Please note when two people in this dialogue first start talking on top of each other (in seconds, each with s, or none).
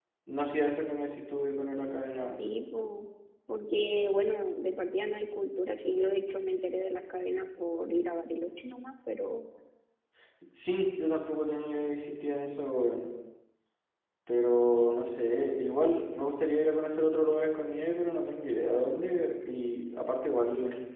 none